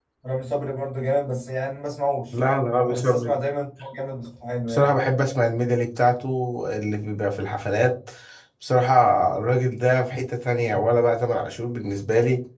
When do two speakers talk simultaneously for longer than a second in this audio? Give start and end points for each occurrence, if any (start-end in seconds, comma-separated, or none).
none